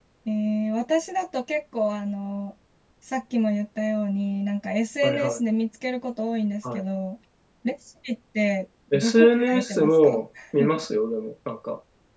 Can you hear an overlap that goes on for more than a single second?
Yes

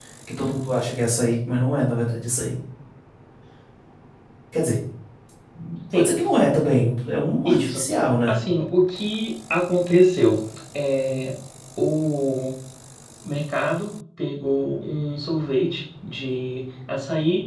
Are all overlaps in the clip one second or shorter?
Yes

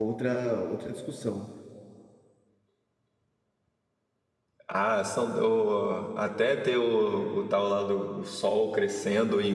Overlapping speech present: No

